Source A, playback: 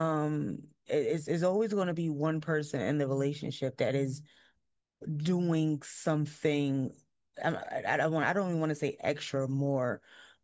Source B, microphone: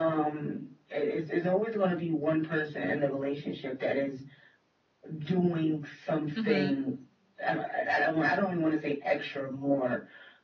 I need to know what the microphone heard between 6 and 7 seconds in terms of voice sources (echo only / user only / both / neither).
both